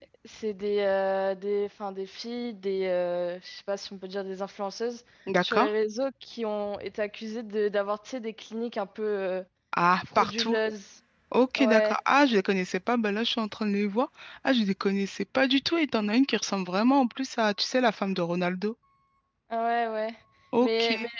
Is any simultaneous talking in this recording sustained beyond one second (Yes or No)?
No